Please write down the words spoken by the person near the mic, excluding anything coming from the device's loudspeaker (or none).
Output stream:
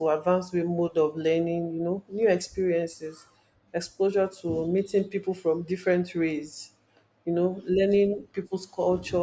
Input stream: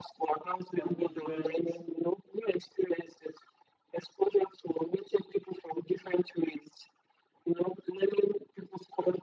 for different